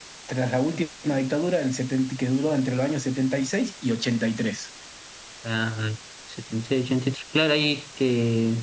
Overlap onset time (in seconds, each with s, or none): none